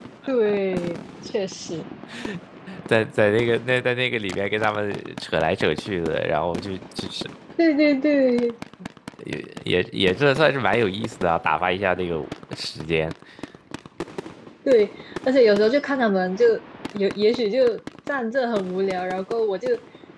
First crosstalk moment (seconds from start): none

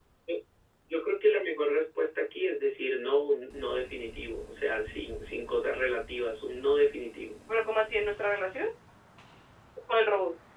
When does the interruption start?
none

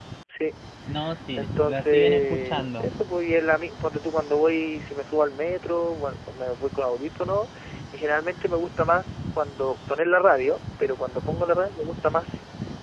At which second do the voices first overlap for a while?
1.4 s

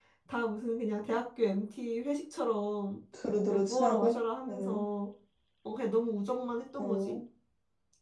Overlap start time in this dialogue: 3.5 s

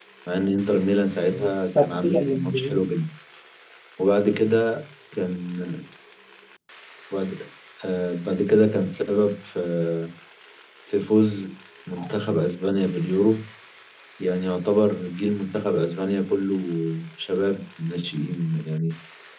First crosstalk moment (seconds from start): 1.3 s

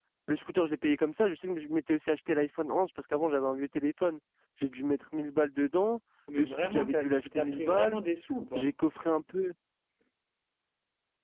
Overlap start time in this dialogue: 6.3 s

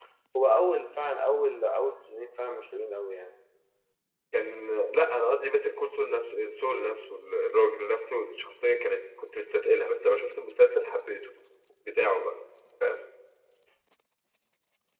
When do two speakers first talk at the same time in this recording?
none

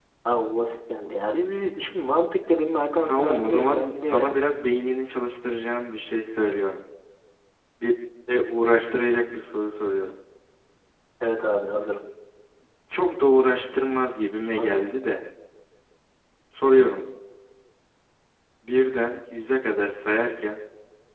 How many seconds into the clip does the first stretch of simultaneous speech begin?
3.0 s

